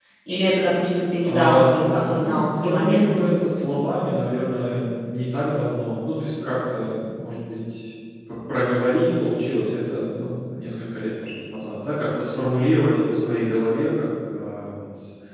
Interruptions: present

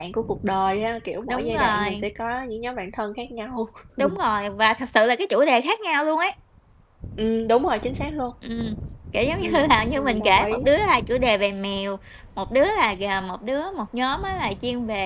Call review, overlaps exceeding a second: present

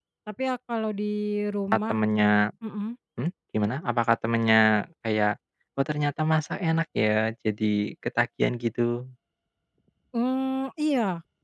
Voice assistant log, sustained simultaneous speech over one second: none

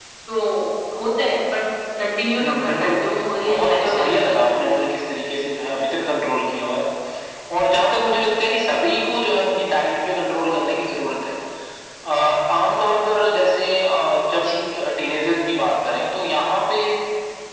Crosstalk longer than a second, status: present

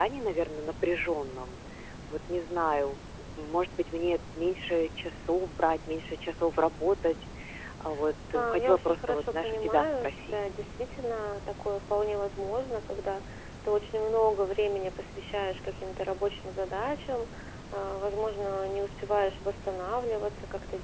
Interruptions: present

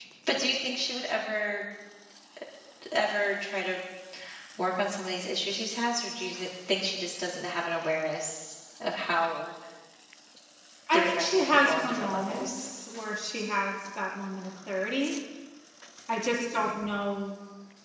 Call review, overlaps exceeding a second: present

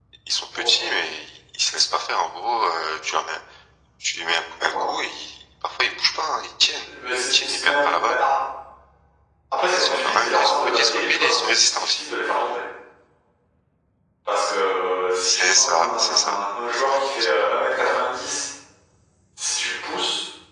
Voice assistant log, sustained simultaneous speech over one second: present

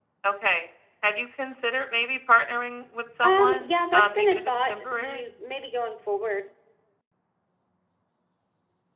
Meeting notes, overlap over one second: present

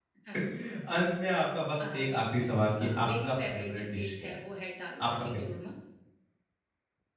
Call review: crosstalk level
present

